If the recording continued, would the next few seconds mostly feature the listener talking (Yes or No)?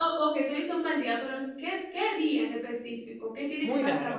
Yes